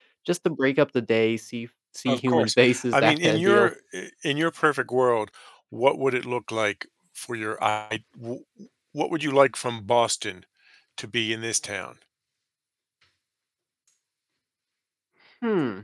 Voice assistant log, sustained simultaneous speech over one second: present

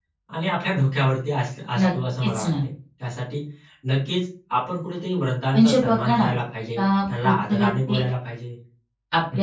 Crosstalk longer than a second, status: present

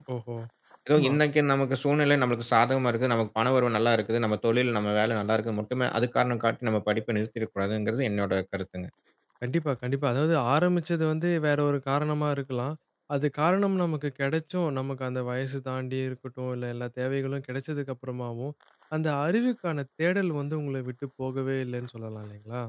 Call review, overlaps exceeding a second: none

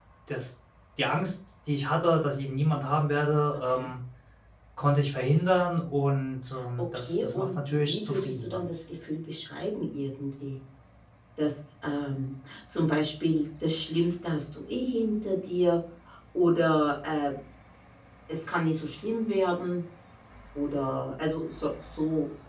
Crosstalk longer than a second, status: present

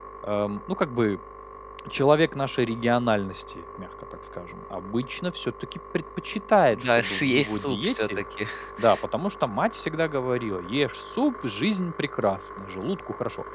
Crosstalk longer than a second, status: present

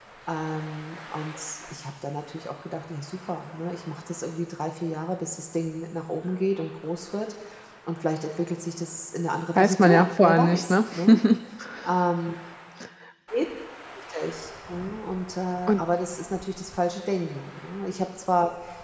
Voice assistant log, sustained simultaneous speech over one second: present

